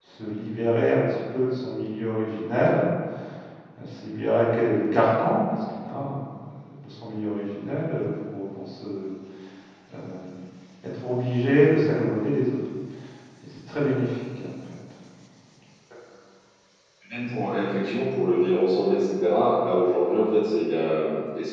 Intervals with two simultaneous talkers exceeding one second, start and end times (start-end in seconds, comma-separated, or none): none